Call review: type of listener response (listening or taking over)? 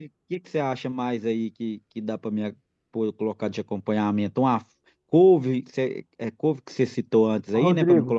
taking over